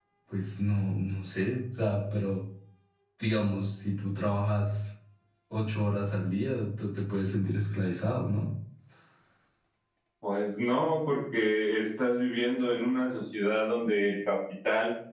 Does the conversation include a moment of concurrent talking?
No

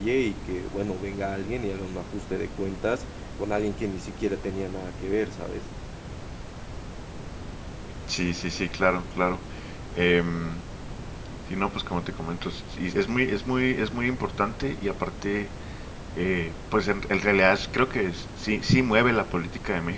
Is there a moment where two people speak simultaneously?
No

